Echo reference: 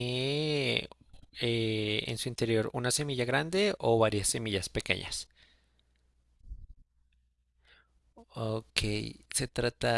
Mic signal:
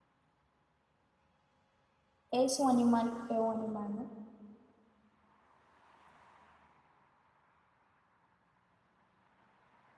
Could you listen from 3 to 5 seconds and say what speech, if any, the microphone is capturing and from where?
user only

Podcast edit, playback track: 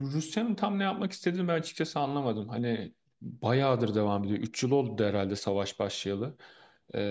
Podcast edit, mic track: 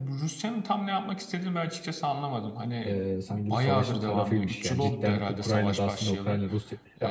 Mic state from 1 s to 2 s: echo only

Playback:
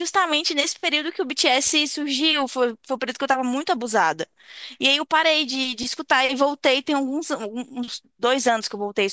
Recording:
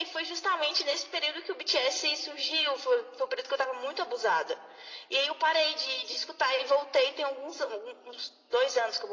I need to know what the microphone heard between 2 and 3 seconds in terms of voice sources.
echo only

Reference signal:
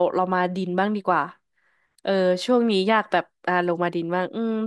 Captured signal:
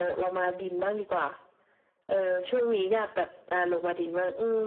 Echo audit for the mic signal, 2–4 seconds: echo only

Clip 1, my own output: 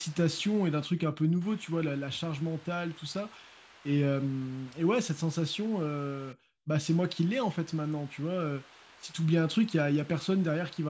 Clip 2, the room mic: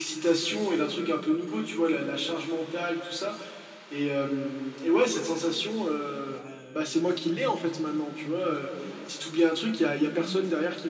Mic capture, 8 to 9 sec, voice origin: both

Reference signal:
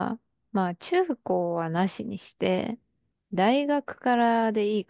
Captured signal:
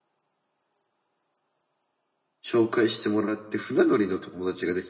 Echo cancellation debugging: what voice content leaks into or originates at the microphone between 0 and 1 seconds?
neither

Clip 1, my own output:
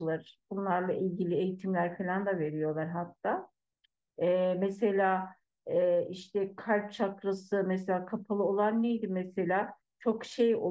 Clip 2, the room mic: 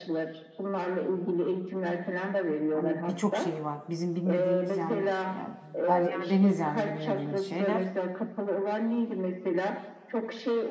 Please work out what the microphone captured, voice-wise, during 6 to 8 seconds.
both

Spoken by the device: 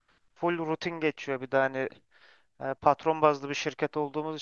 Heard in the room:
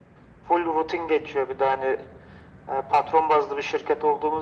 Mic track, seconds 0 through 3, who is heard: echo only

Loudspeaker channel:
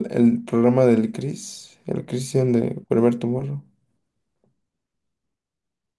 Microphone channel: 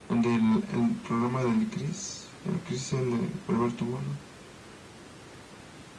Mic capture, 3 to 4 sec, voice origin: echo only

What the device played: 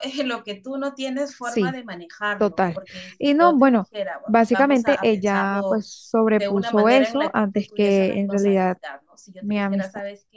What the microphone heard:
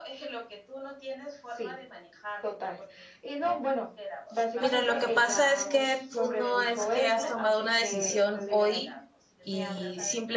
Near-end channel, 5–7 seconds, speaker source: both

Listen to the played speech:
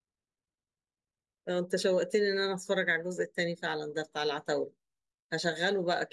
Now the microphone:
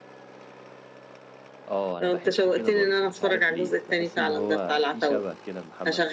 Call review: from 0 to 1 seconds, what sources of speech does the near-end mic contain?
neither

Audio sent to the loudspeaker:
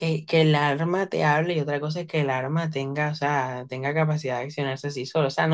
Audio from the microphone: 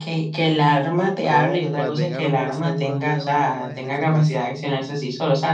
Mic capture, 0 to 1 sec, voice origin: echo only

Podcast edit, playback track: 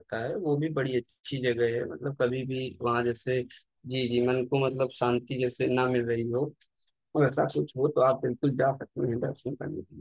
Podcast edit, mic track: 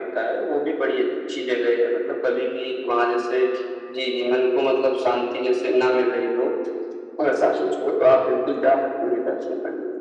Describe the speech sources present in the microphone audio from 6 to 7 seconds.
echo only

